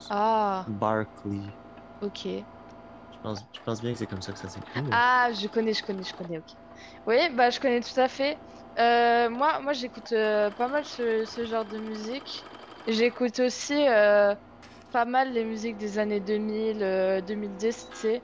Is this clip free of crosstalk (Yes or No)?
Yes